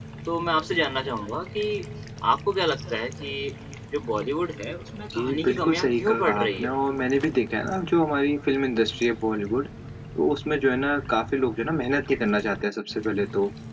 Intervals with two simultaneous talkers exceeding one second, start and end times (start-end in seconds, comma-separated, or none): 5.1-6.7